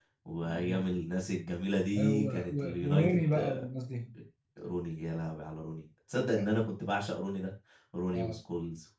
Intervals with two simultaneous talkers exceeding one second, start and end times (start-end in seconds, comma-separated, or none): 2.0-3.6